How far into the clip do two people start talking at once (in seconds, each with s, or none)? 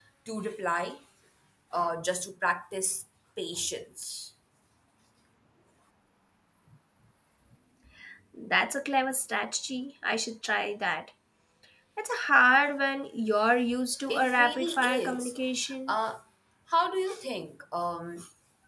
14.1 s